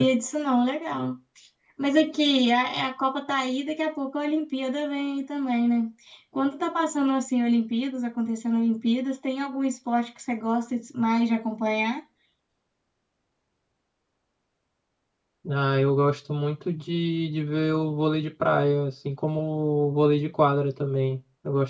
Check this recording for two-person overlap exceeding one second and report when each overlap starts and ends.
none

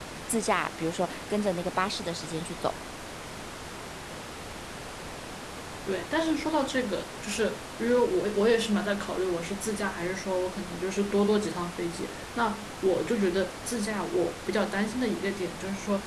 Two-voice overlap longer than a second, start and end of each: none

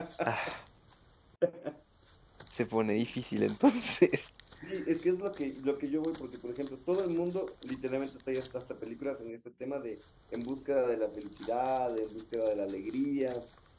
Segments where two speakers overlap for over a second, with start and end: none

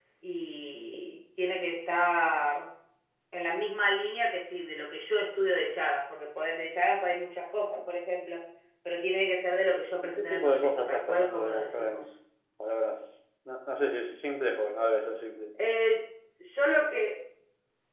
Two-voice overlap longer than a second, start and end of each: 10.2-12.1

